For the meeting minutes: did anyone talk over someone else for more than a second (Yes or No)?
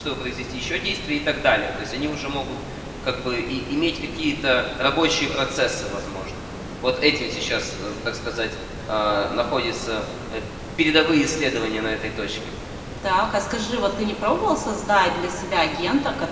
No